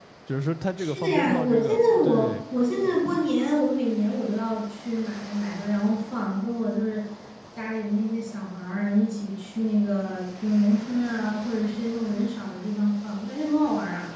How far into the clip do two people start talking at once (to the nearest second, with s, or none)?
1 s